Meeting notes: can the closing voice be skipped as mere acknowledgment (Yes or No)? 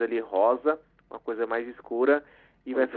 Yes